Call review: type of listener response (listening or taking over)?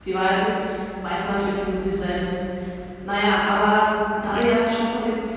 listening